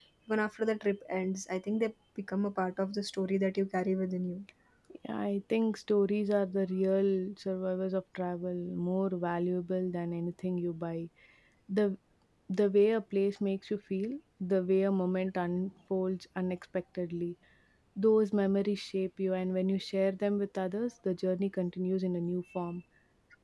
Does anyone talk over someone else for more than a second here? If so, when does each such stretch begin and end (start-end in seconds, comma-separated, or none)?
none